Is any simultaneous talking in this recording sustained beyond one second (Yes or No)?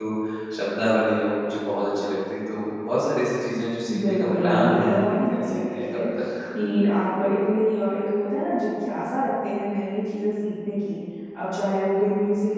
Yes